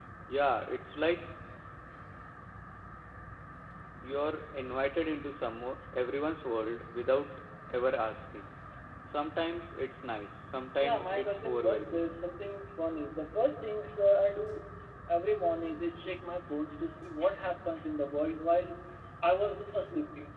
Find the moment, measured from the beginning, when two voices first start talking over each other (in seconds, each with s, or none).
10.8 s